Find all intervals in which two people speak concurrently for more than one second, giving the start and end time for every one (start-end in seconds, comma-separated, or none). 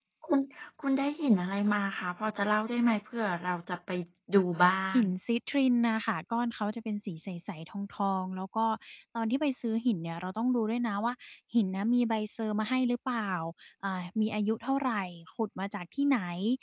none